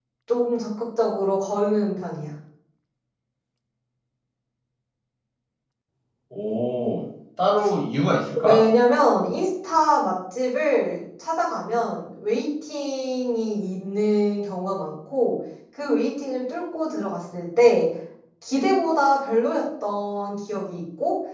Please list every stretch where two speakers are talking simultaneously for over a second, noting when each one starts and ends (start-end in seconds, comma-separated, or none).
none